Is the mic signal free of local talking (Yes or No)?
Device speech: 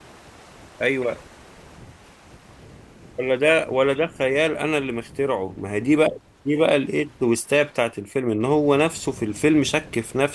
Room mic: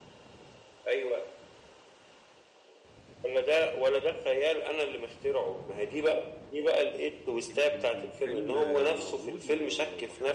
No